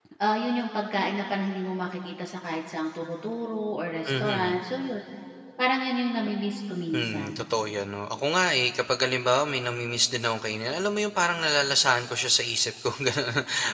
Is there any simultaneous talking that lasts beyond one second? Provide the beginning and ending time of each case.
none

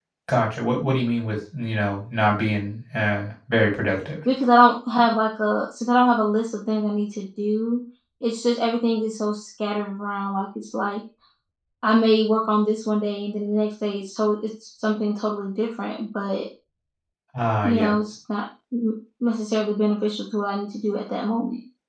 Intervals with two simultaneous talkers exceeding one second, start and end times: none

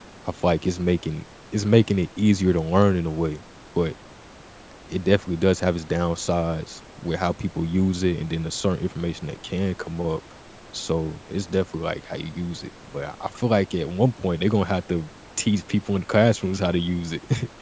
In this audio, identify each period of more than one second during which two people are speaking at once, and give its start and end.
none

